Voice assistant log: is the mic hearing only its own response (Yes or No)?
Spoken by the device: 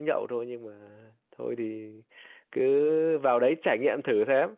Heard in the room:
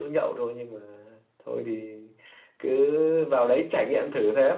Yes